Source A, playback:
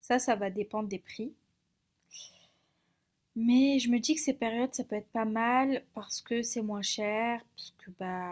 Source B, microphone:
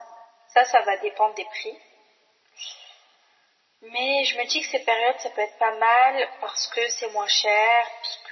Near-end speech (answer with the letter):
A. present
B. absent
B